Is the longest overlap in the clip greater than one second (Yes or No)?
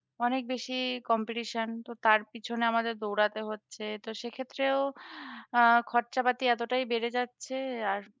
No